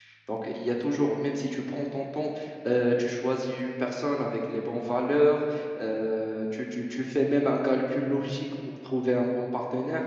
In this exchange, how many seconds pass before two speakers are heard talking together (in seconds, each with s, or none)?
none